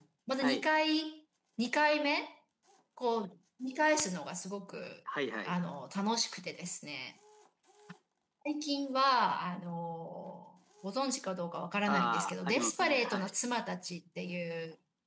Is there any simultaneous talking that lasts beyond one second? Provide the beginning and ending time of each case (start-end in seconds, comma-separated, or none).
11.9-13.3